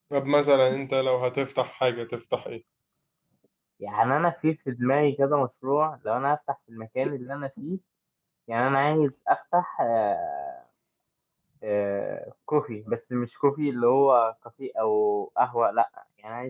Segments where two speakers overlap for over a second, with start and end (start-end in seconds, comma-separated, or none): none